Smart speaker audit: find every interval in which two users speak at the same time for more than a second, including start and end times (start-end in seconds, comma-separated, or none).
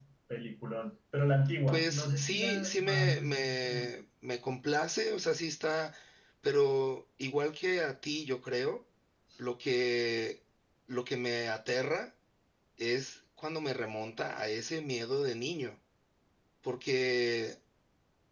1.7-3.9